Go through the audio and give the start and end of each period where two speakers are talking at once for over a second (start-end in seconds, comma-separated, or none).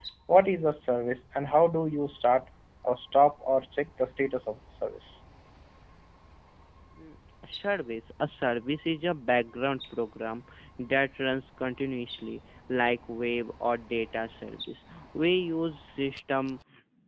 none